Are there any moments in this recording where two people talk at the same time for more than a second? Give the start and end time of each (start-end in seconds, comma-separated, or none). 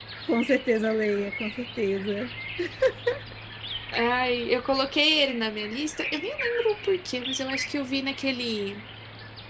none